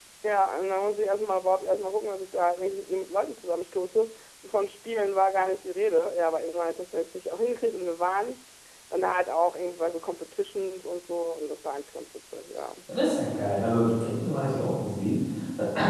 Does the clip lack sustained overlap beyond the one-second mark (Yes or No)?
Yes